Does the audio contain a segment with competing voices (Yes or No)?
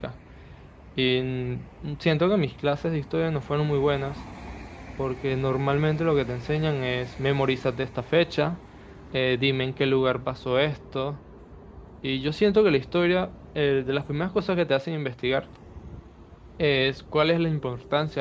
No